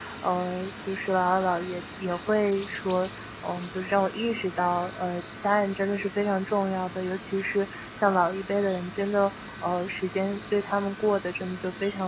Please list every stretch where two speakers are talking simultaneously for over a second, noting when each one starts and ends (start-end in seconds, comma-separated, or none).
none